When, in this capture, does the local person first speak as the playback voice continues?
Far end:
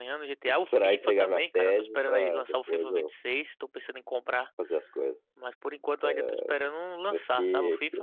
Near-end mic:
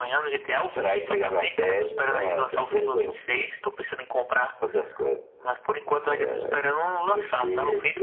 none

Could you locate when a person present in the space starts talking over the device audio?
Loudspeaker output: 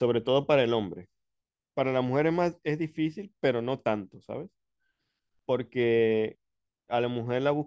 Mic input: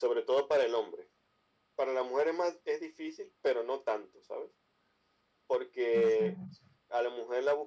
6 s

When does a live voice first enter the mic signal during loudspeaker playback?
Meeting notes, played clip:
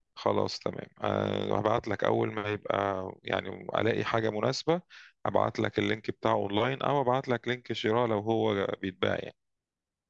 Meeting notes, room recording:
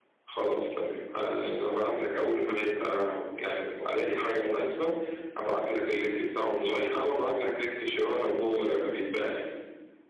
none

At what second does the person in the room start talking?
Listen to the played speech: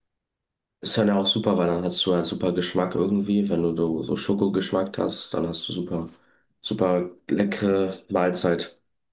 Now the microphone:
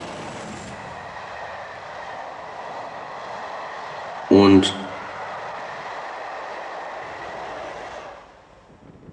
4 s

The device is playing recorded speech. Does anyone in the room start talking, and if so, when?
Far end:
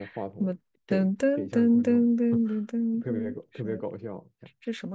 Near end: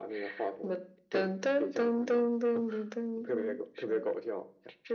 none

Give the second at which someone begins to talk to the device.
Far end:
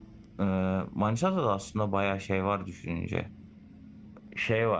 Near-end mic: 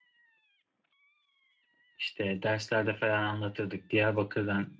2 s

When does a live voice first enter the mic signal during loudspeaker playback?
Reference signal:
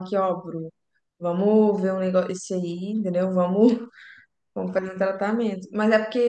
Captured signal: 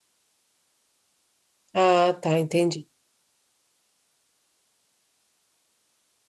2 s

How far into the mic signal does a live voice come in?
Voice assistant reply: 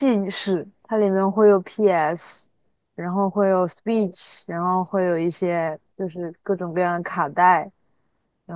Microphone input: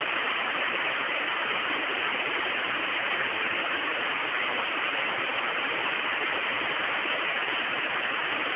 none

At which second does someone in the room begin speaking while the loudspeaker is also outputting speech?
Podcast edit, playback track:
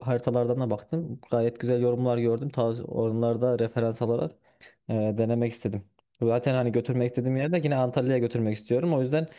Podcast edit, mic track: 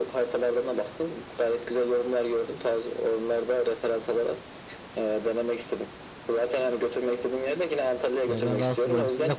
8 s

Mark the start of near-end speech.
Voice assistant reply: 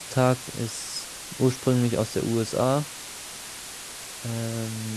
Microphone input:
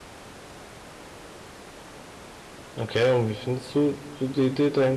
3 s

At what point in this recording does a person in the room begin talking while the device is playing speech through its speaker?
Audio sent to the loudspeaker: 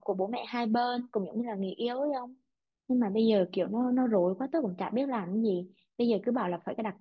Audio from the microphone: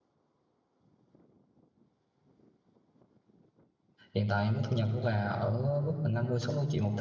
4 s

